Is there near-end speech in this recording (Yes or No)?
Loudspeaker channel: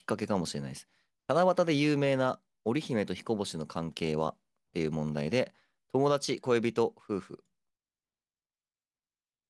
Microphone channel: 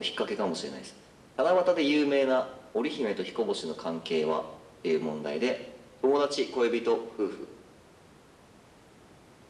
No